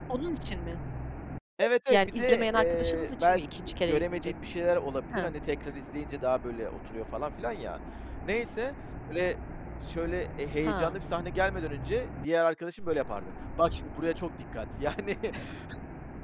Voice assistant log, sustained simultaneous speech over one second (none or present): present